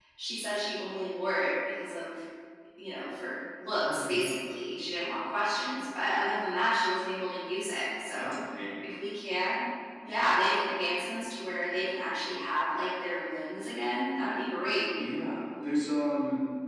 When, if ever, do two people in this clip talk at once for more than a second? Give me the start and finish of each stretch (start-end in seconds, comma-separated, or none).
none